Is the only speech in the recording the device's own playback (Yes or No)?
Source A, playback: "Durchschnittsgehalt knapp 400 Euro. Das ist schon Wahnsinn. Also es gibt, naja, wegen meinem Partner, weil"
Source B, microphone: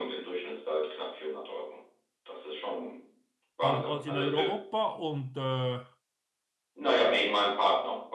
No